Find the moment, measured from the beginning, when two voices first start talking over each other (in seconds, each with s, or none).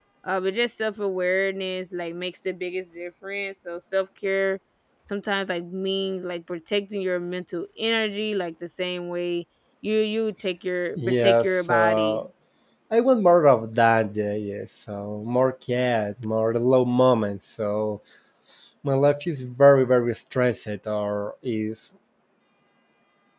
11.0 s